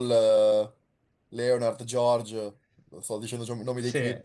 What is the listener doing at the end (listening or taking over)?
taking over